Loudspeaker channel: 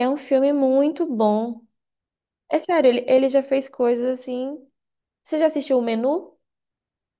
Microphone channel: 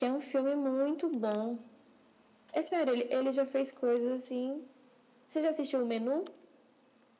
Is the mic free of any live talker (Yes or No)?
Yes